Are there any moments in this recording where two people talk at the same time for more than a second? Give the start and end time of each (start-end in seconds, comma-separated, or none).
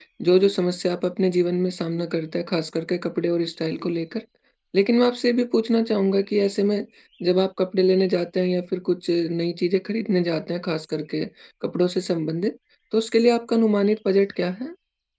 none